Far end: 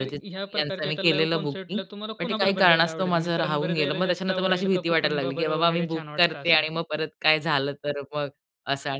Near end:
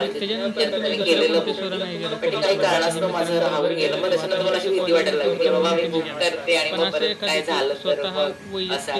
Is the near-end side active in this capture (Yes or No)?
Yes